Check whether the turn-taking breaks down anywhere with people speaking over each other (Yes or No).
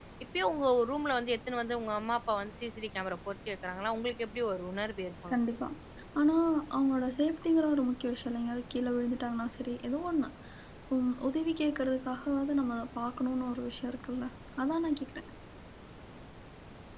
No